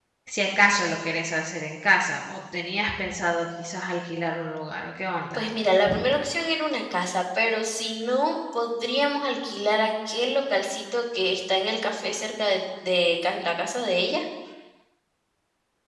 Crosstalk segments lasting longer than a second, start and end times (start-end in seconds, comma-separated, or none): none